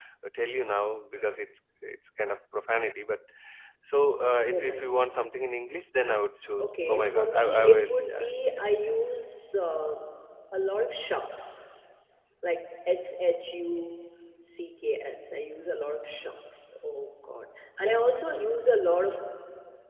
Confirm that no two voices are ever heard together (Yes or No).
No